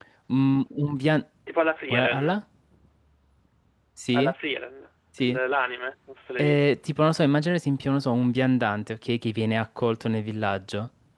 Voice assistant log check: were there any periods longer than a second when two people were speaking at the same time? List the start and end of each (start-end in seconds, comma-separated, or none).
none